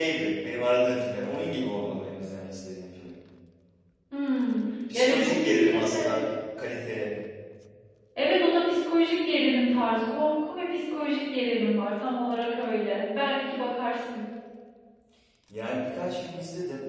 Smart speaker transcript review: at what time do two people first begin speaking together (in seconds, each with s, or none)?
4.9 s